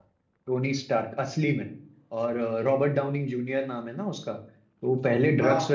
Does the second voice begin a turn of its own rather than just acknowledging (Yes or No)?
No